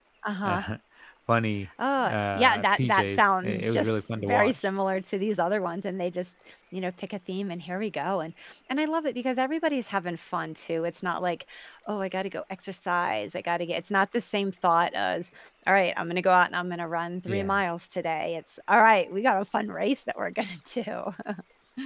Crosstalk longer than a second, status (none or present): present